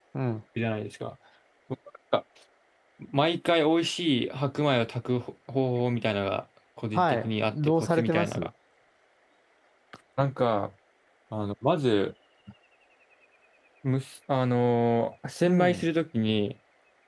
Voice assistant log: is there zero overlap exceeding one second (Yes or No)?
No